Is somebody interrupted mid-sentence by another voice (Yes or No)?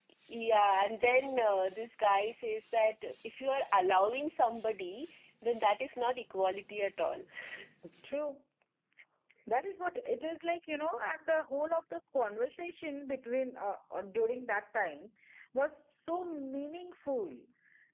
No